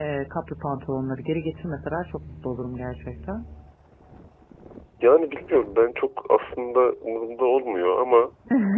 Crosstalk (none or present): none